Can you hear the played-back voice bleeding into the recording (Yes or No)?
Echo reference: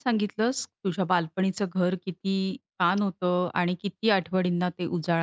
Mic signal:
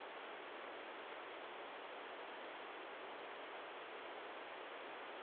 No